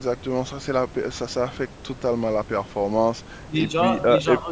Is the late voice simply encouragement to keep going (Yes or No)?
No